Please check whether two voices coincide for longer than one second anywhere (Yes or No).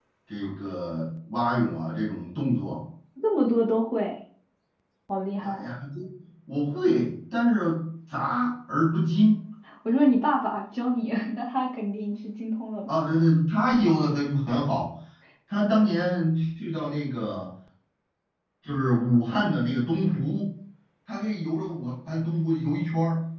No